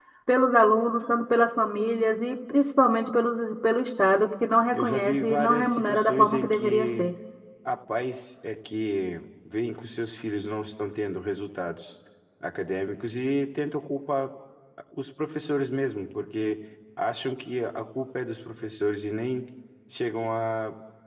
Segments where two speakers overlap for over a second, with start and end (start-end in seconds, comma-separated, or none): 4.7-7.1